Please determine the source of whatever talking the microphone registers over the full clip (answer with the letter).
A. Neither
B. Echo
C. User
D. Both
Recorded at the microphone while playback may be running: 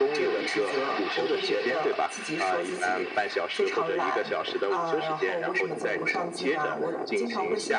B